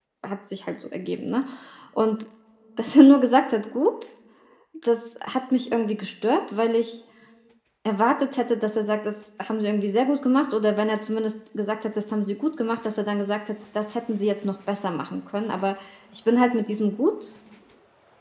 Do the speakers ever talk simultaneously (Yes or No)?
No